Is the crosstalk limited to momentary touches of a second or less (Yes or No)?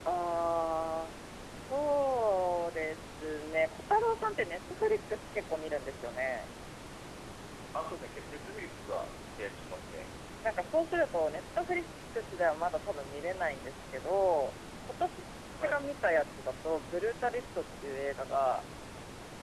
Yes